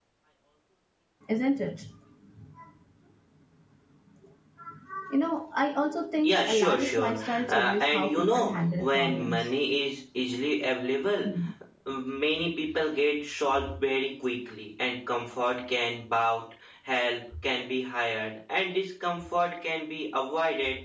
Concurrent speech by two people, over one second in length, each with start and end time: 6.2-9.5

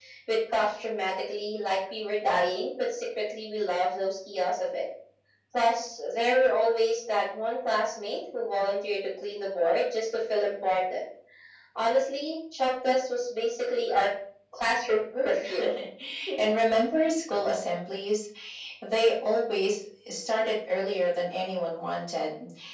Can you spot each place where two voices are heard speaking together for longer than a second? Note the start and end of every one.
none

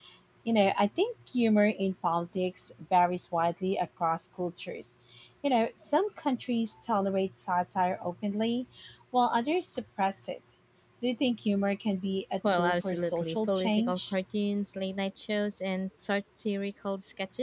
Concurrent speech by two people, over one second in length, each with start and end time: 12.5-14.1

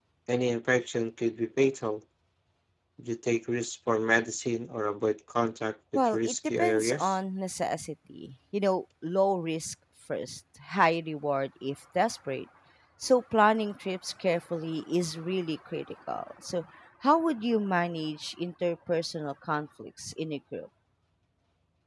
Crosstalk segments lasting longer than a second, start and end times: 6.0-7.2

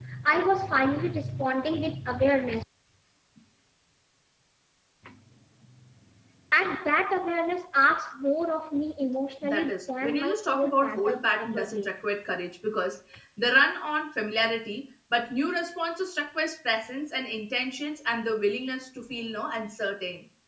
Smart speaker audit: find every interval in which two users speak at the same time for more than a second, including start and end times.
9.4-12.0

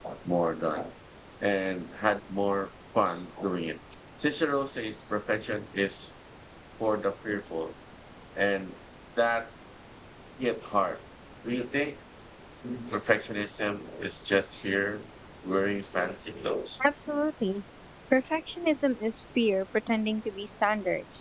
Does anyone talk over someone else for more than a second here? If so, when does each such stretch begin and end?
none

